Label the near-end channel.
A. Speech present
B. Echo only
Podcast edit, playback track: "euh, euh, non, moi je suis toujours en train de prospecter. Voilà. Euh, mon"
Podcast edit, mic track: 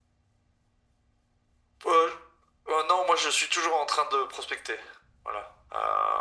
B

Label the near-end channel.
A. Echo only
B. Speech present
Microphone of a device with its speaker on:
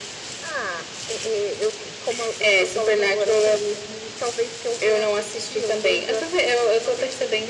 A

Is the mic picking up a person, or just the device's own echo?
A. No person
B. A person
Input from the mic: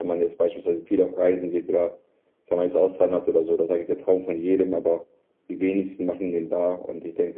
A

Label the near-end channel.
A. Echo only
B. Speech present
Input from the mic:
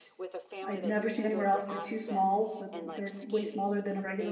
B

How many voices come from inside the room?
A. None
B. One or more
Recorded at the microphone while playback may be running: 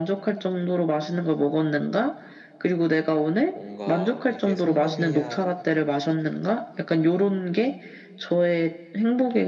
B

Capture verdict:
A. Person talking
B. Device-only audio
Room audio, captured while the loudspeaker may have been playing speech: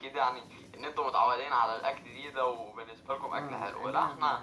A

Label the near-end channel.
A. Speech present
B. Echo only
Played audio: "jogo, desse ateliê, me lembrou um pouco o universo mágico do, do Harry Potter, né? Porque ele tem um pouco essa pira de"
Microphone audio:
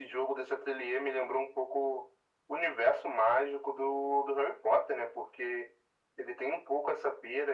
B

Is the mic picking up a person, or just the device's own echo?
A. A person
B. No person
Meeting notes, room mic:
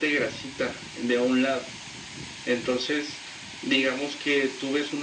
B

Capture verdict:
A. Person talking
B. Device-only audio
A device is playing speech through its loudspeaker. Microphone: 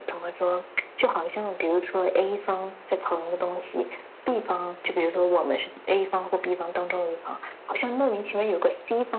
B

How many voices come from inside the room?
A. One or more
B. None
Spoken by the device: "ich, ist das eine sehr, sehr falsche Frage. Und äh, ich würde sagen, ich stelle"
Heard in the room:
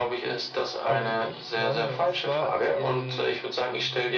A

